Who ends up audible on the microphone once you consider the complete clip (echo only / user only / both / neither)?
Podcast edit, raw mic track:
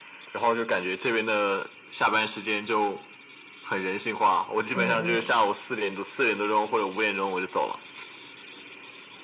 both